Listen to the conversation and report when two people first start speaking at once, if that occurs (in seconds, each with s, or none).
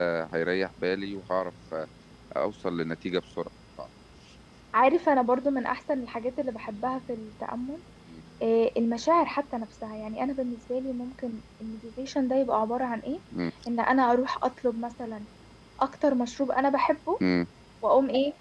none